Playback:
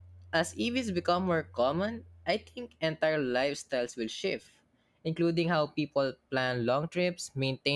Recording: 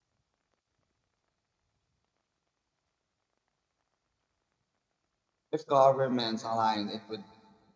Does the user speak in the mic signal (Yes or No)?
Yes